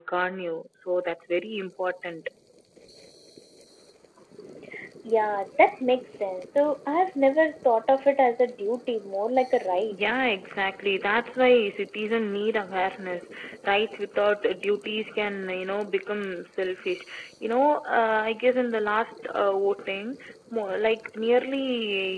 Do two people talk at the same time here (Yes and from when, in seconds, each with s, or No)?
No